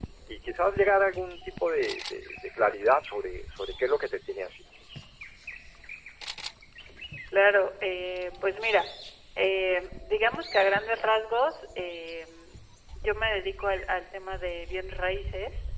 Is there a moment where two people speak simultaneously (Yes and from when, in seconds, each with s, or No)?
No